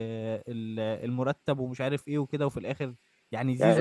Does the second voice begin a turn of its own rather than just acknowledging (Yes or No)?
Yes